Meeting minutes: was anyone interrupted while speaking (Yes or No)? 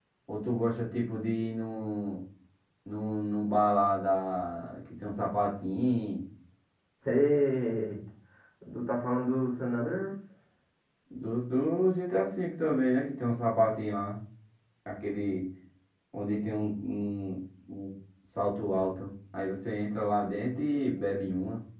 No